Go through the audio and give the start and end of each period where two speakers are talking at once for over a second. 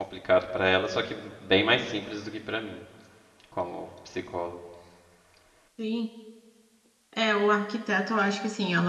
none

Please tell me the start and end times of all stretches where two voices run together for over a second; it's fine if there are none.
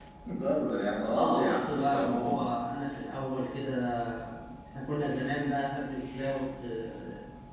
1.1-2.4

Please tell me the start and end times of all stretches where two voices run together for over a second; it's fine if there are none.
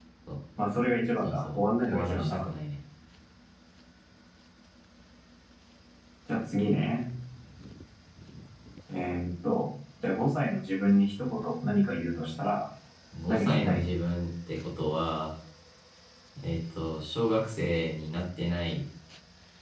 1.2-2.4

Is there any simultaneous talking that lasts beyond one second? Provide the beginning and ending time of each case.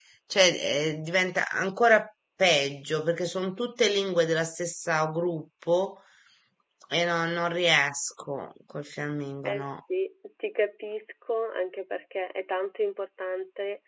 none

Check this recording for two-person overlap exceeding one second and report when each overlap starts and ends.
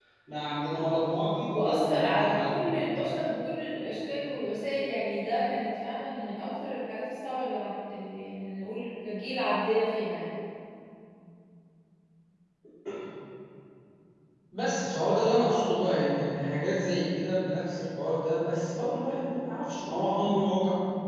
1.5-2.7

